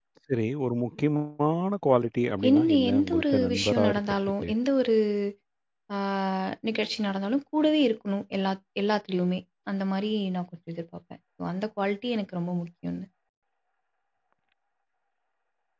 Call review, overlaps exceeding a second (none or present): present